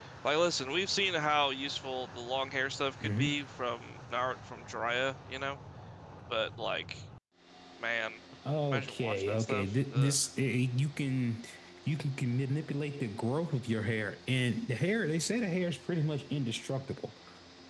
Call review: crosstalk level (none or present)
present